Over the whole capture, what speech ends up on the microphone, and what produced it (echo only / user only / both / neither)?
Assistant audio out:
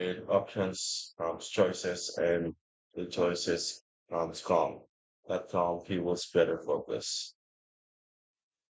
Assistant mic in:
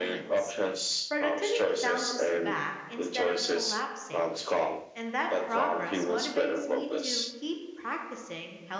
both